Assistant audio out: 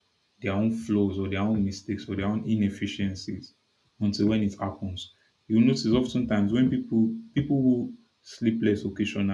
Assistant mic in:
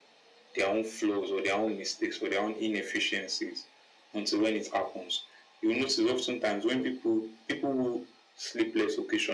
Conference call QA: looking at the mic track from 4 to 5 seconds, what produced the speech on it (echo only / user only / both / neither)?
echo only